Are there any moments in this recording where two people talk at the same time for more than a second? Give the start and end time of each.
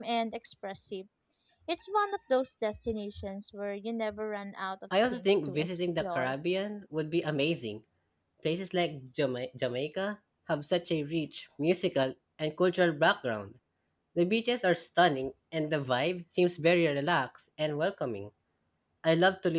5.0-6.3

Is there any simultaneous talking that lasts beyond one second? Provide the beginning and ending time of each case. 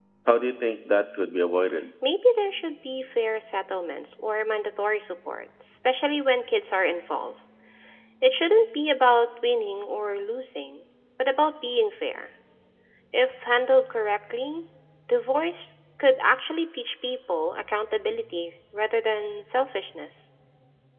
none

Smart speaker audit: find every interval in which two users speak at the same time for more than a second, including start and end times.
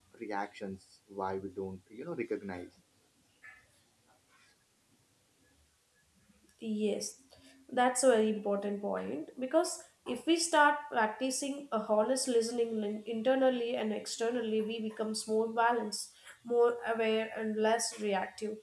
none

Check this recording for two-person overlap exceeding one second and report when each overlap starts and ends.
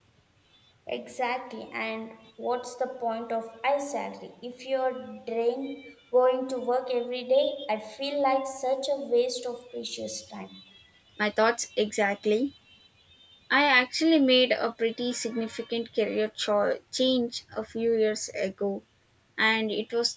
none

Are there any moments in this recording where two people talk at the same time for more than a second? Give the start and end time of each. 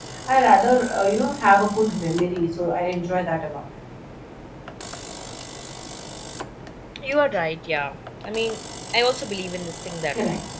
none

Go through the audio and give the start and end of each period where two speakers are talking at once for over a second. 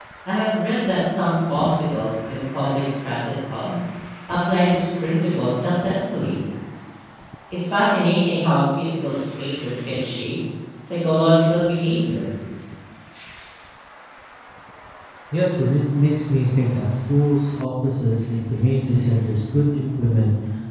none

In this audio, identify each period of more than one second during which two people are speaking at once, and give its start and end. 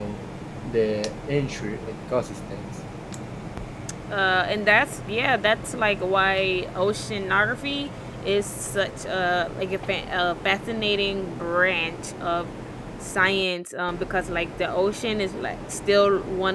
none

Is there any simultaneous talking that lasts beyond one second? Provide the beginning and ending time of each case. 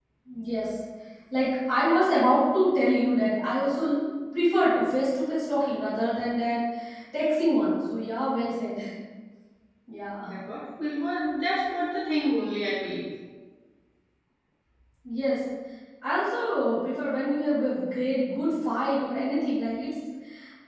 none

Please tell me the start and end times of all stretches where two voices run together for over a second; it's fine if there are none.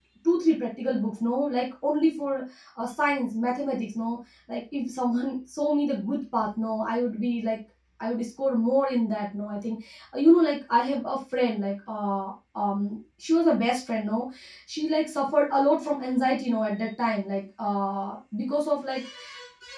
none

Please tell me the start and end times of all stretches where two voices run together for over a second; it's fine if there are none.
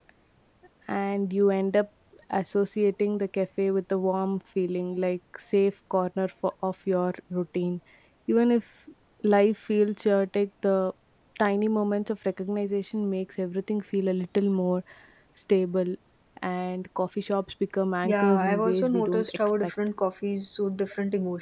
18.1-19.7

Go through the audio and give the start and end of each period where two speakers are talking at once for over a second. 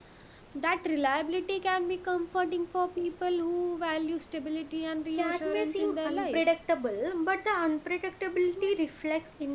5.2-6.4

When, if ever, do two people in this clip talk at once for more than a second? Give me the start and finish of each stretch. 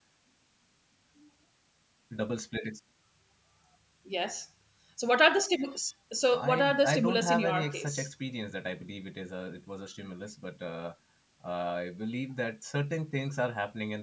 6.3-8.1

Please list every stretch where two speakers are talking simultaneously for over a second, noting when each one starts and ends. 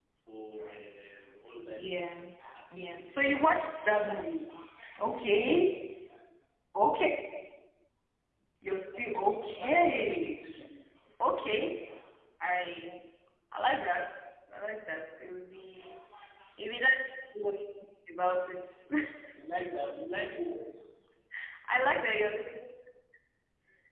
2.8-4.4, 8.9-10.5

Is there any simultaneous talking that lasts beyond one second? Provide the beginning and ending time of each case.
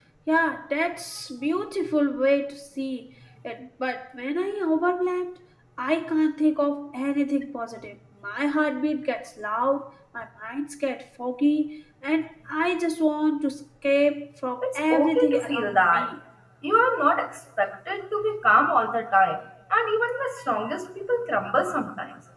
14.6-16.1

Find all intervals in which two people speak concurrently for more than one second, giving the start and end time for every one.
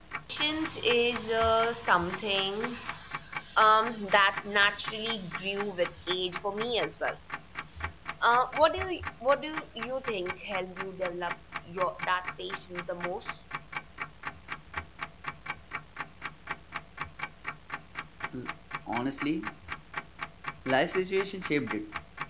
none

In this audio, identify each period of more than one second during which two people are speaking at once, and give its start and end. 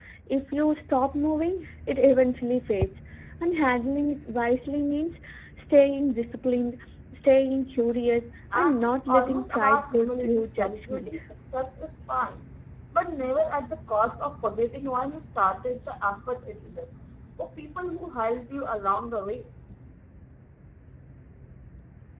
8.6-11.2

